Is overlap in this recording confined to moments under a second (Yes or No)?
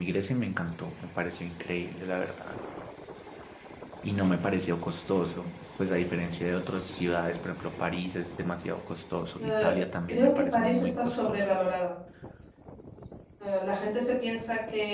No